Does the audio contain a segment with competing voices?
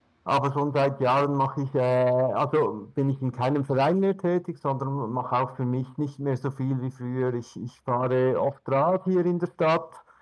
No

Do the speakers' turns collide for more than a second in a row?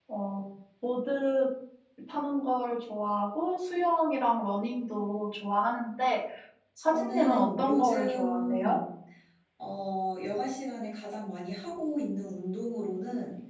Yes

